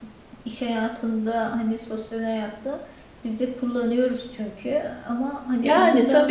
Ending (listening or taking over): taking over